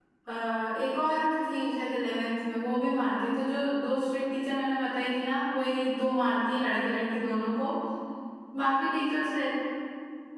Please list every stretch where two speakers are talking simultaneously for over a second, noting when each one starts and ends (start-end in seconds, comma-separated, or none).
none